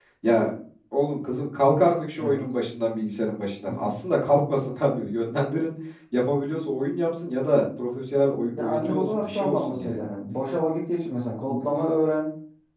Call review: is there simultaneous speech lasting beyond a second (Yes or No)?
Yes